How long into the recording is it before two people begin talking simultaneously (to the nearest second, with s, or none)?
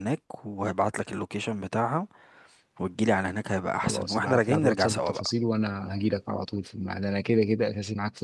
4 s